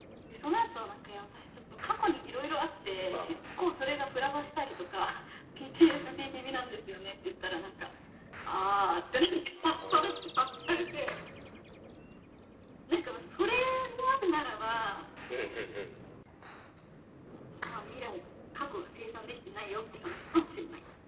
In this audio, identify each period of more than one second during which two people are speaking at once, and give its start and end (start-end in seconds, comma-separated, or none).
9.5-10.9